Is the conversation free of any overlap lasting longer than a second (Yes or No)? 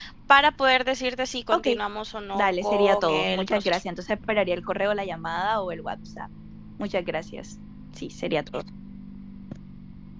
No